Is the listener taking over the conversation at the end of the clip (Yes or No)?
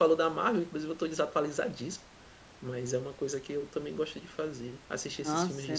Yes